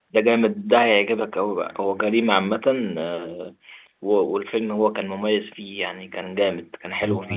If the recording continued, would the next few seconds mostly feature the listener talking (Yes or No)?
Yes